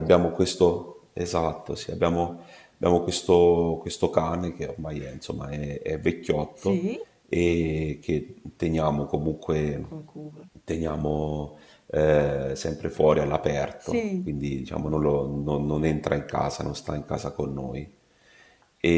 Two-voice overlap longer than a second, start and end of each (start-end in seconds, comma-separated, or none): none